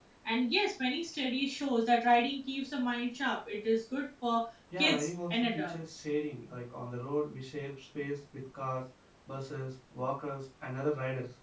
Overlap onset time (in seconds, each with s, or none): 4.7 s